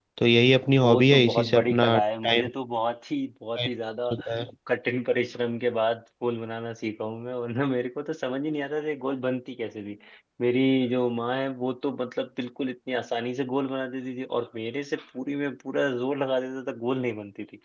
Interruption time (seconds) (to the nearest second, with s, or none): 1 s